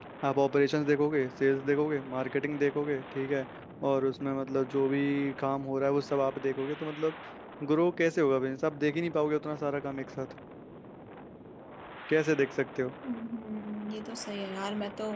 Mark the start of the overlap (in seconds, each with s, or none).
none